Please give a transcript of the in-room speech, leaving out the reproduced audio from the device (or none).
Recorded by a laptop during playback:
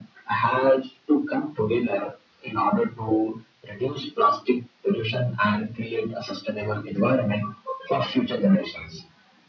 none